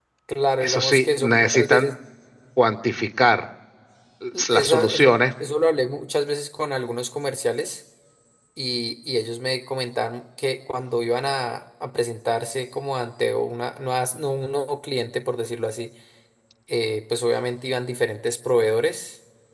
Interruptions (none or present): present